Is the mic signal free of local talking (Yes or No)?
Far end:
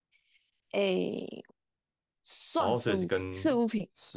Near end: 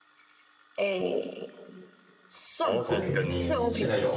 No